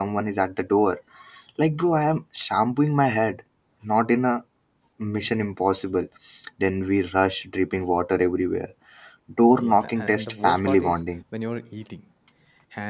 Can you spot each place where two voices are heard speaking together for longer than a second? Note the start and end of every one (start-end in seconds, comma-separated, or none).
9.6-11.0